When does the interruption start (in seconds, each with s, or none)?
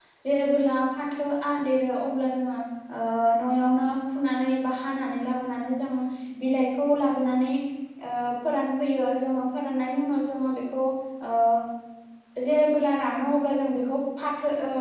none